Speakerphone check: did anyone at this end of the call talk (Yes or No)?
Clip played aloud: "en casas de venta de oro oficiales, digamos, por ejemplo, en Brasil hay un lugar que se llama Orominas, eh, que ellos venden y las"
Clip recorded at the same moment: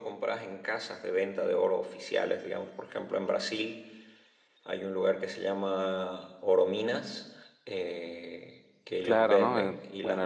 Yes